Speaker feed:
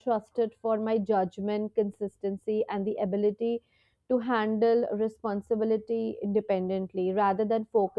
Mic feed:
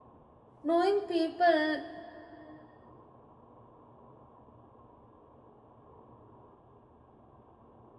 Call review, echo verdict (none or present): none